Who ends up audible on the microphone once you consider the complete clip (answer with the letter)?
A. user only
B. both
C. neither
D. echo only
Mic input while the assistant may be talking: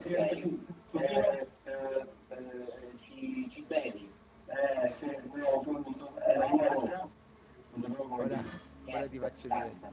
B